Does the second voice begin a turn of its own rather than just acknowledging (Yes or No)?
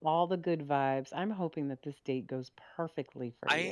Yes